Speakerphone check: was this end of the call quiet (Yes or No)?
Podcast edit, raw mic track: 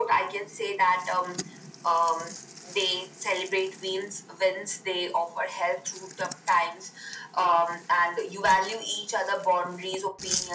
Yes